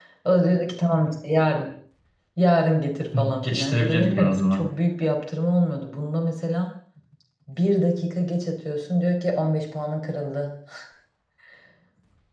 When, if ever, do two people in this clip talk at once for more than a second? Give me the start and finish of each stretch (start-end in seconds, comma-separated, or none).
3.1-4.6